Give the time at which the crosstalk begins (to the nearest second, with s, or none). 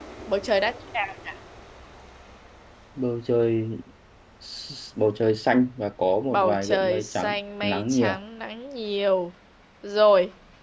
6 s